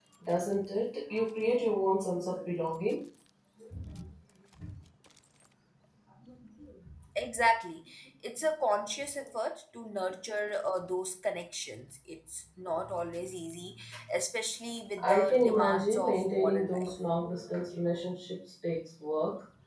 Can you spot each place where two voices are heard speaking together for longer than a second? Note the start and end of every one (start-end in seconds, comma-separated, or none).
15.0-16.9